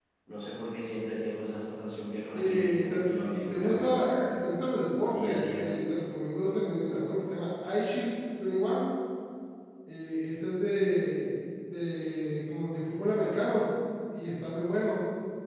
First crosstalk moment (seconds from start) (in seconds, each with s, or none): 2.3 s